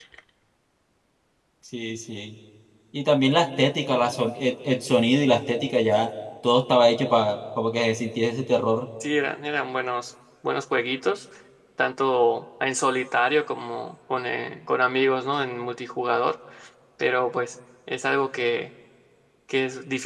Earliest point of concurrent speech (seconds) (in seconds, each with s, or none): none